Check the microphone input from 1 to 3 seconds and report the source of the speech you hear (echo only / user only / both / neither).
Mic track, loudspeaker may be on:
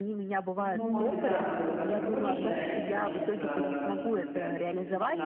both